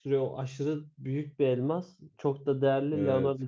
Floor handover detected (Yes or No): No